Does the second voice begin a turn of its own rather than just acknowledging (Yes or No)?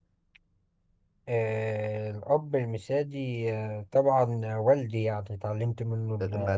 Yes